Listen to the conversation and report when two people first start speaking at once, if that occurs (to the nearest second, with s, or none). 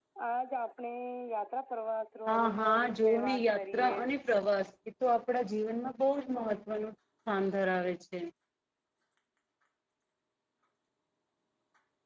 2 s